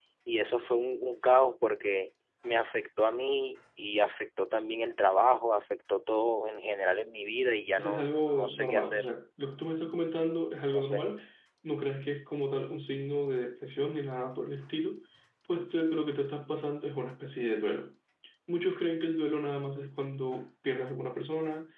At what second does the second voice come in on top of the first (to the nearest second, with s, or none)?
8 s